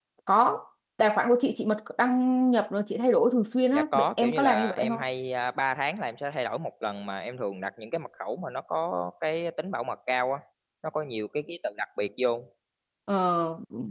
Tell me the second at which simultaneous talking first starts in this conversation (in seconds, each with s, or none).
3.7 s